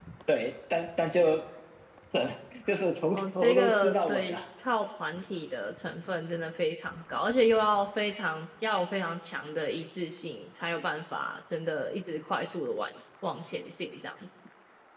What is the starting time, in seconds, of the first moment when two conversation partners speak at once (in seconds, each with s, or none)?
3.1 s